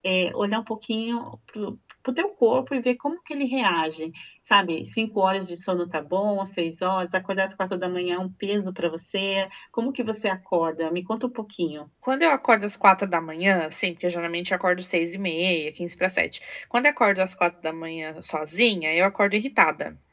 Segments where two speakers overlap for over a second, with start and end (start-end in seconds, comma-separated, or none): none